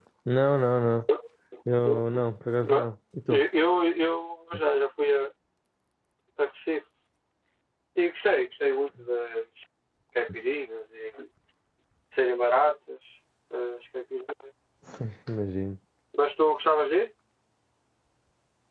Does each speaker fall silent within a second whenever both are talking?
Yes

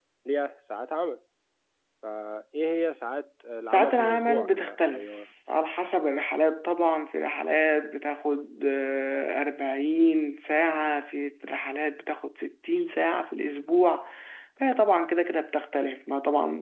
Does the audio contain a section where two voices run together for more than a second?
Yes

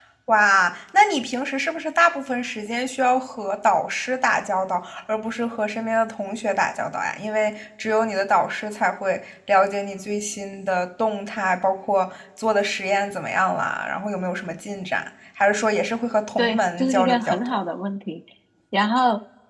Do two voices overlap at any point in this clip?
Yes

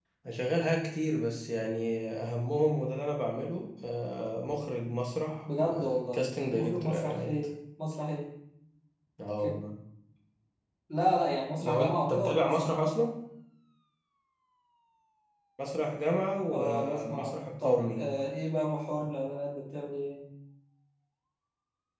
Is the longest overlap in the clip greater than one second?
Yes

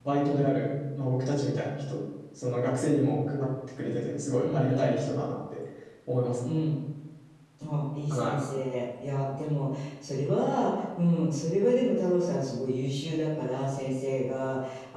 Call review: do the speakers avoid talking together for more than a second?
Yes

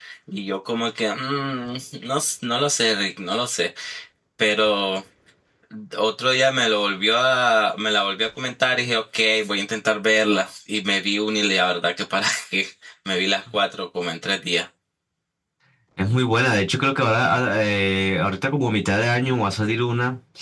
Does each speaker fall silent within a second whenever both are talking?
Yes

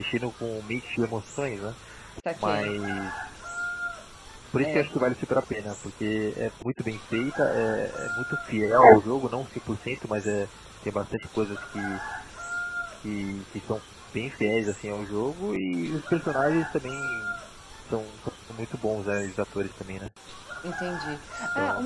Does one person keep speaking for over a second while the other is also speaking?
No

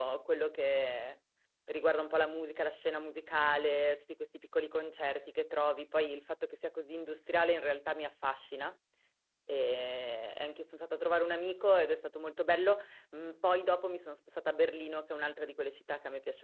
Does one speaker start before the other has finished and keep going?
No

